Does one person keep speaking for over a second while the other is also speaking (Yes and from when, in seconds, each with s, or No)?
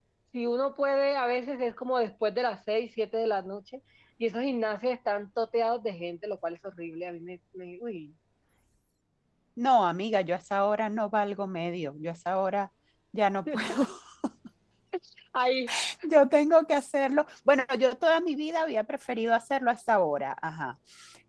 No